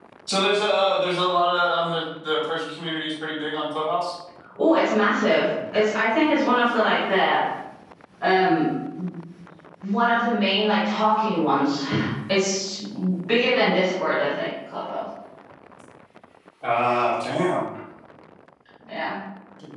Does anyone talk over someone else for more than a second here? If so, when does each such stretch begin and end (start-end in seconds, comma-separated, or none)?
none